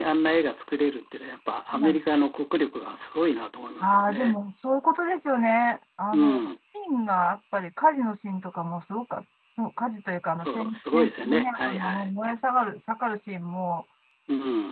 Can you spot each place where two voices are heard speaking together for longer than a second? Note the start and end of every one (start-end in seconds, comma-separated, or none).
10.4-12.1